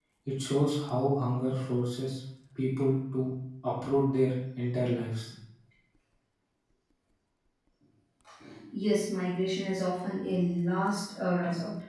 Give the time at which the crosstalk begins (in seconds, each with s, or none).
none